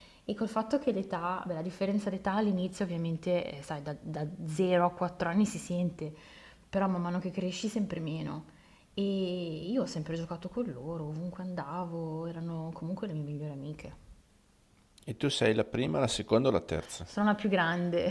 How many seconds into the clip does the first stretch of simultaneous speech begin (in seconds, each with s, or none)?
none